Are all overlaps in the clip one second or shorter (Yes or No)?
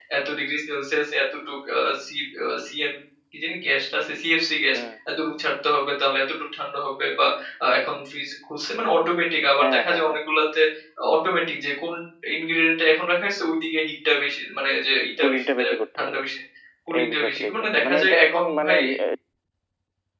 No